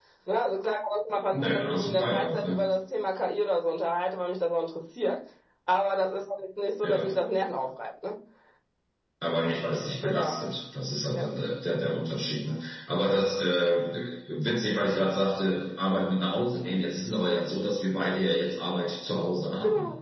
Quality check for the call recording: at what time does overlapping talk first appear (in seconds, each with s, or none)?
1.3 s